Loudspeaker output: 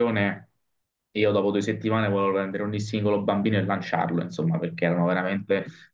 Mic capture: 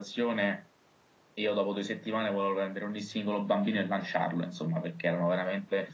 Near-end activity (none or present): none